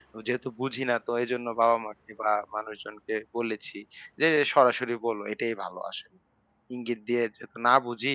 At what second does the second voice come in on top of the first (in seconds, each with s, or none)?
none